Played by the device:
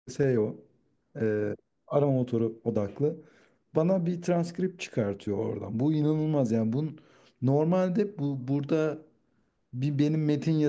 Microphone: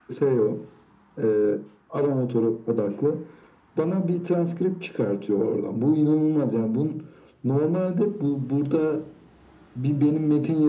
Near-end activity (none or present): none